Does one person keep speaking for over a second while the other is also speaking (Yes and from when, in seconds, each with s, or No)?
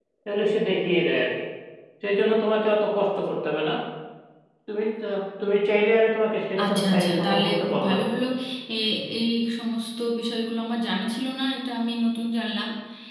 Yes, from 6.6 s